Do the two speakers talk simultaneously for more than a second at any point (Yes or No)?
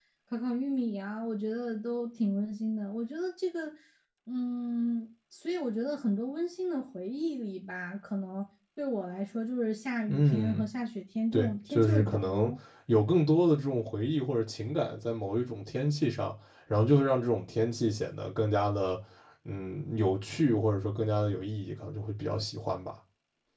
Yes